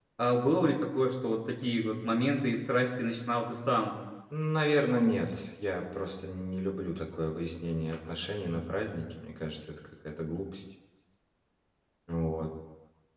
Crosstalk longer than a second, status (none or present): none